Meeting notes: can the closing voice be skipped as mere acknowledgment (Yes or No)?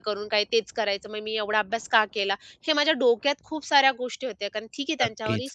No